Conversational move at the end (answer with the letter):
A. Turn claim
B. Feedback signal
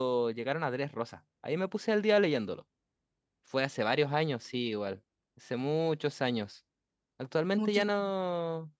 B